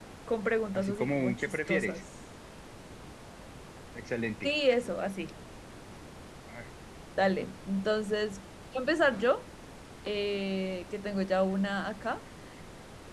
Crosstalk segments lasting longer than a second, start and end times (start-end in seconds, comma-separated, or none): 0.8-2.0